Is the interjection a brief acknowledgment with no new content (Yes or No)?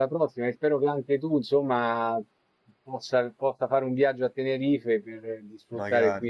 Yes